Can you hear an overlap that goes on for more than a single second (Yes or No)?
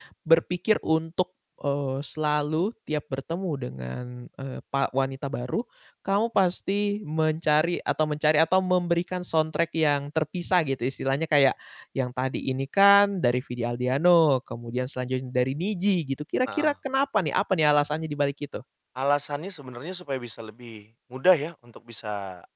No